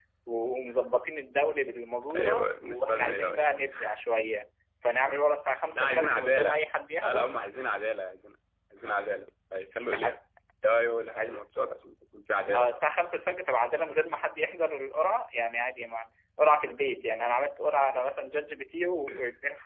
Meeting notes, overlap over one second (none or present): present